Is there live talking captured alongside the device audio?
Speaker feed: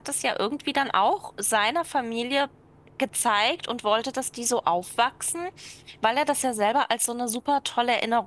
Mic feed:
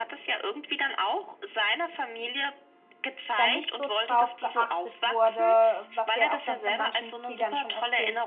Yes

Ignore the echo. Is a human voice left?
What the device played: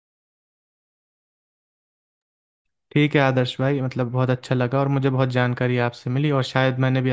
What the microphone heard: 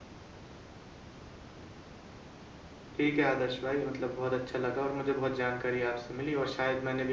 No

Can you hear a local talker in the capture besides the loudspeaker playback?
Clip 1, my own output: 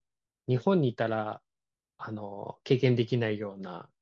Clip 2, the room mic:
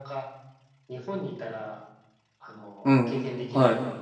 Yes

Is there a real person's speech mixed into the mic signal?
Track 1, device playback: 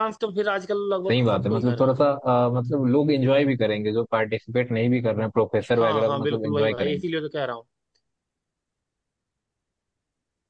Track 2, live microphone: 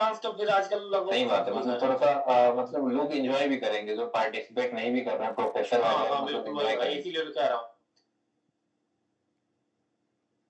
No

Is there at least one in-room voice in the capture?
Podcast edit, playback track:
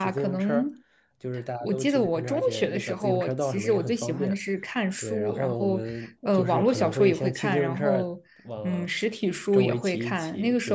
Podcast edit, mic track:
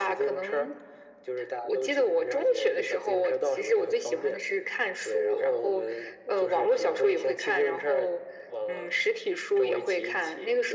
No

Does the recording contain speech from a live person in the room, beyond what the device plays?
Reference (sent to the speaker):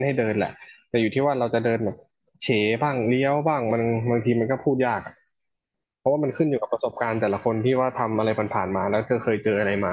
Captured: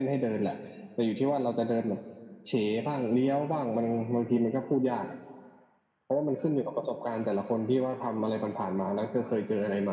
No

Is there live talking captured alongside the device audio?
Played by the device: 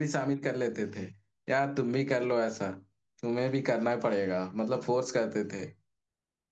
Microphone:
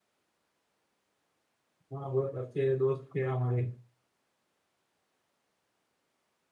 Yes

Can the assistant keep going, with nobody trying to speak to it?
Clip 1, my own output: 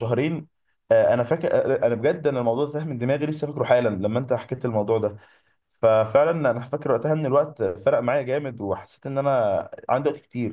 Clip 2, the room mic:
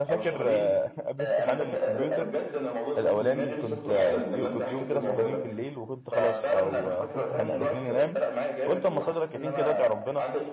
No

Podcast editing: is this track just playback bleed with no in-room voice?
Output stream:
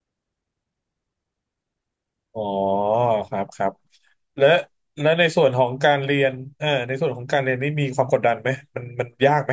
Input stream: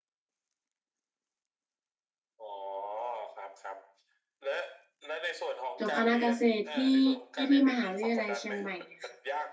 No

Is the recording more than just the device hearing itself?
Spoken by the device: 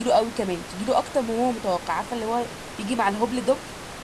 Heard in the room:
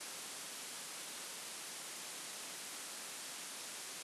No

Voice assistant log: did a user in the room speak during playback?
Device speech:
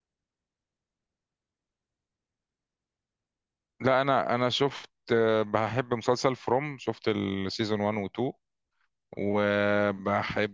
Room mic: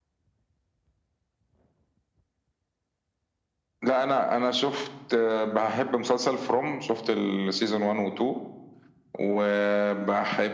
No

